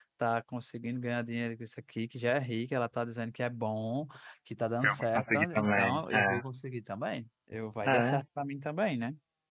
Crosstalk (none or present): present